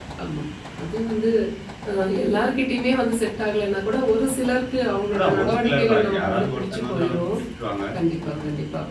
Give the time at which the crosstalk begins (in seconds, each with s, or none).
5.1 s